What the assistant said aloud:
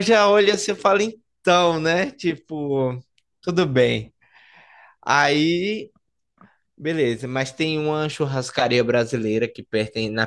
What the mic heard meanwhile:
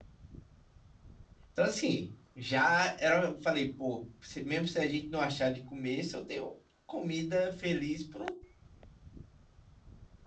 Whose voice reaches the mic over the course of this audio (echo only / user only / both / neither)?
user only